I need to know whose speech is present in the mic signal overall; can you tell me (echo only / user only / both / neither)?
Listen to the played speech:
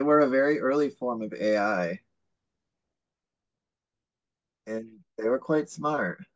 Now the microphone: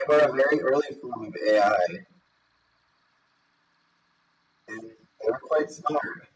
echo only